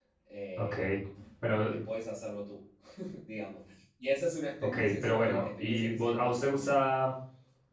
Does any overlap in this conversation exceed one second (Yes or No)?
Yes